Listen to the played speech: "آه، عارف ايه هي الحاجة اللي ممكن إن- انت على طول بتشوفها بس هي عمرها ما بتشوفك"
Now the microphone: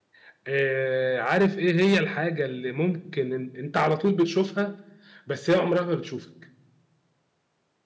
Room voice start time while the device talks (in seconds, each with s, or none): none